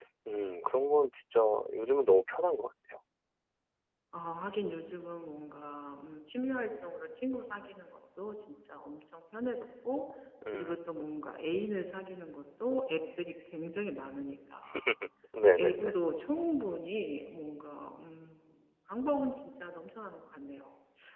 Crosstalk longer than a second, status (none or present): none